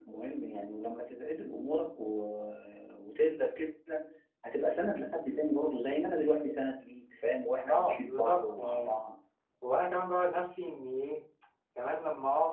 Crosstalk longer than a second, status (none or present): present